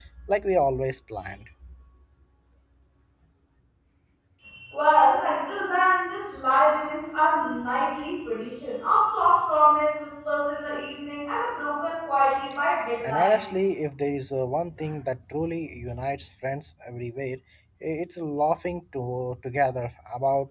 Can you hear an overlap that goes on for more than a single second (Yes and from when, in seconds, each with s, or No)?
No